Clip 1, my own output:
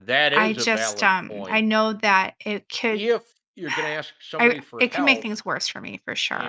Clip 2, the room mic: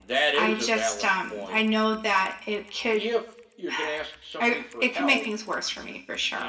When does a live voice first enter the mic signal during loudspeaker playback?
none

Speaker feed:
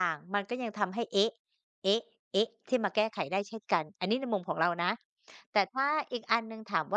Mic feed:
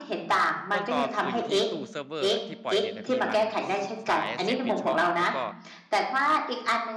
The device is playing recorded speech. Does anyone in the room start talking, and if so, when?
0.7 s

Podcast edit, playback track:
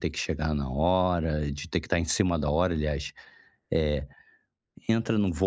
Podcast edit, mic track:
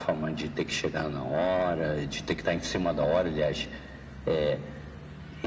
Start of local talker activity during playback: none

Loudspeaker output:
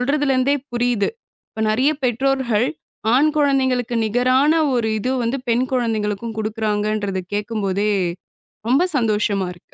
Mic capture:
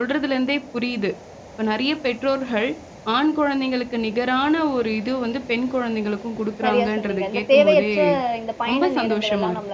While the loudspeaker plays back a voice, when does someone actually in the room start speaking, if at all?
6.6 s

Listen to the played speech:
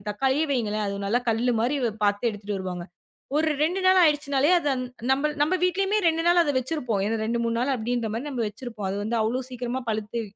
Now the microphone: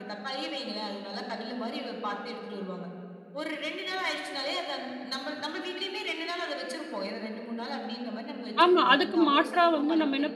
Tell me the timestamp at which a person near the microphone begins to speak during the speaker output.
8.6 s

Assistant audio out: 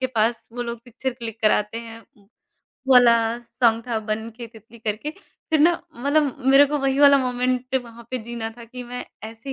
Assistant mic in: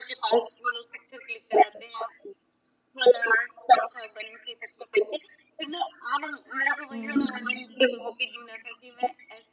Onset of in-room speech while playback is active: 6.9 s

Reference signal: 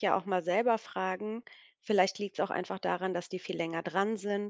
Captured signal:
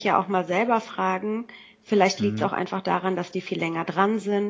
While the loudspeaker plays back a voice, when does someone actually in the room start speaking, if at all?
2.2 s

